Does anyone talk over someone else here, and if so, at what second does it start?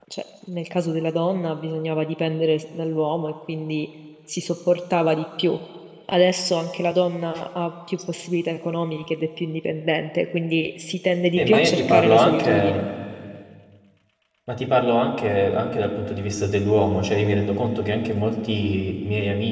11.4 s

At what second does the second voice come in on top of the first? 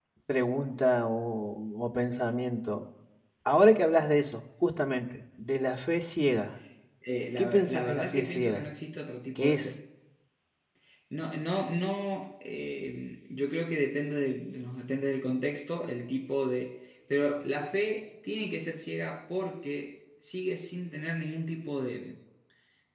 7.4 s

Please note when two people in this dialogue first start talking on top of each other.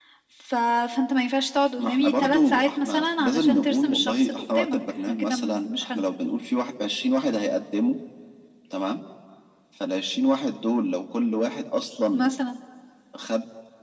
1.8 s

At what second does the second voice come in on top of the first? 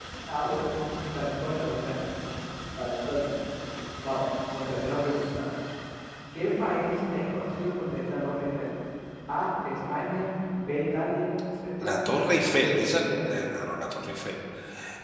11.8 s

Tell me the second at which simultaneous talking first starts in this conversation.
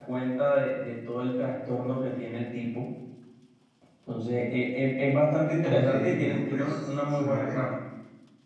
5.6 s

